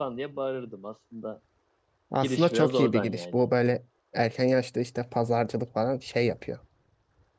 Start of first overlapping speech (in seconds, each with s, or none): 2.2 s